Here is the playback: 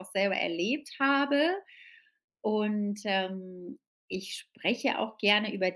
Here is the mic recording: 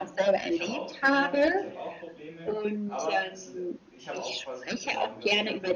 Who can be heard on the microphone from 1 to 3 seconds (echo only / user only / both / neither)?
both